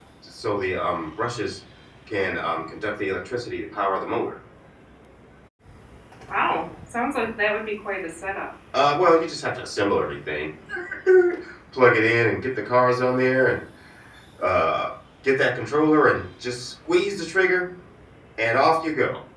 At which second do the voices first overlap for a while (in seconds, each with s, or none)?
none